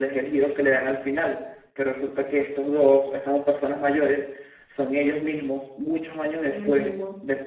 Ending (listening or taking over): listening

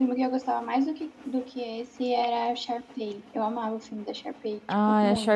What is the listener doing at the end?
taking over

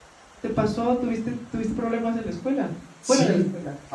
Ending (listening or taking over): taking over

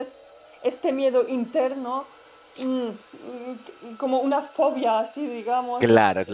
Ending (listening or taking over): taking over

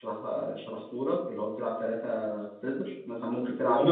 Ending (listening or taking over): taking over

